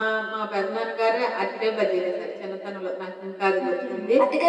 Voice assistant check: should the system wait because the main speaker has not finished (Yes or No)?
No